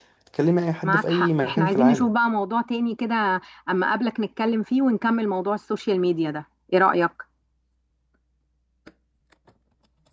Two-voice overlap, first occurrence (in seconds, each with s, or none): 0.8 s